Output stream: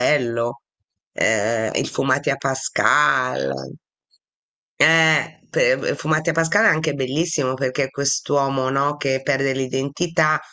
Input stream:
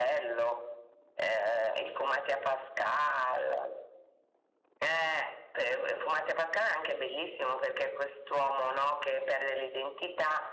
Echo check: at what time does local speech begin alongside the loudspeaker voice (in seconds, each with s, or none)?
none